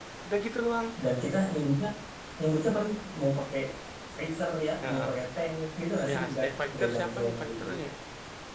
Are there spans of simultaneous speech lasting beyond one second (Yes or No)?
Yes